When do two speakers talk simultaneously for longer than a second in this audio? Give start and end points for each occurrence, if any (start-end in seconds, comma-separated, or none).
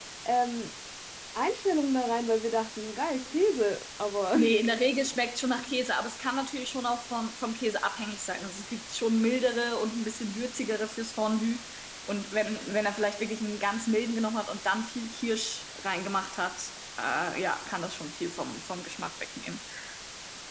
none